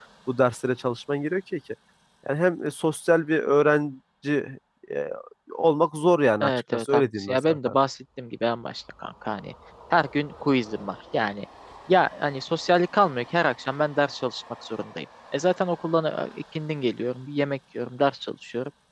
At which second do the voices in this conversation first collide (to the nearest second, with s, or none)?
6 s